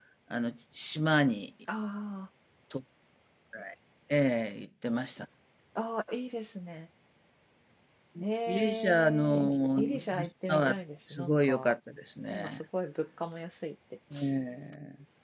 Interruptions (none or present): present